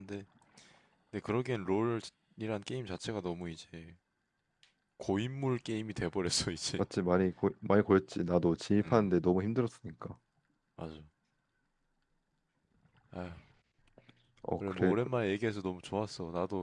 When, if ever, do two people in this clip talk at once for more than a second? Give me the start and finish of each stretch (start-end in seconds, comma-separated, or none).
none